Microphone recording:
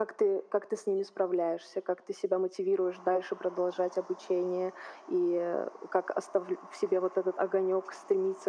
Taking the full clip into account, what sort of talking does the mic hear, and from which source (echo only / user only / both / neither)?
echo only